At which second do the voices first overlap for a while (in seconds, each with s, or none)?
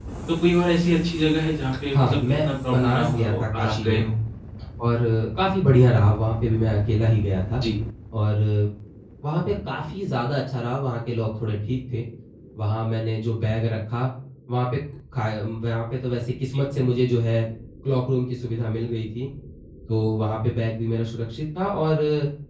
1.9 s